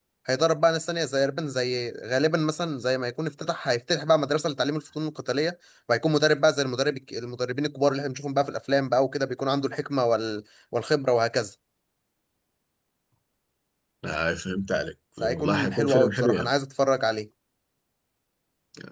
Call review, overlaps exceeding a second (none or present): present